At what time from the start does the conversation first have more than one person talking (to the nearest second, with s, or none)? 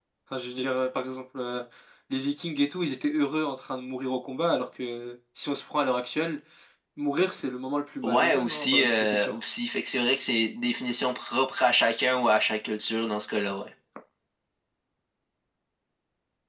8 s